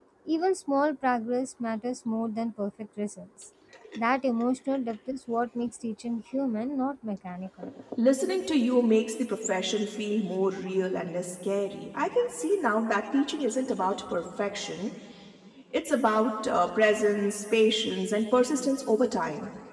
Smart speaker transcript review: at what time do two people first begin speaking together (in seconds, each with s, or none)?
none